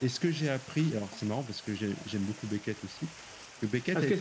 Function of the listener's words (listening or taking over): taking over